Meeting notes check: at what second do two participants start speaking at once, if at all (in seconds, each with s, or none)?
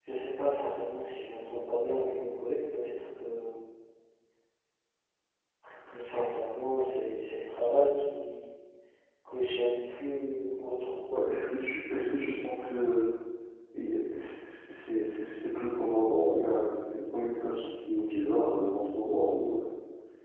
none